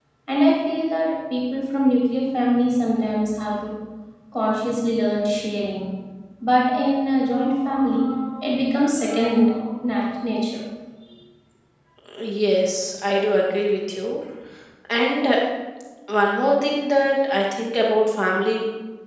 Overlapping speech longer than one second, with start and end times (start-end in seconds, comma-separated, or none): none